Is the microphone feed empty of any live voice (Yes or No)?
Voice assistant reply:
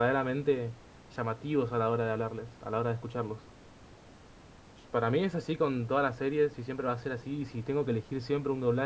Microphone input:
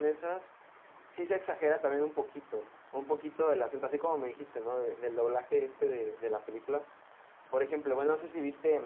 No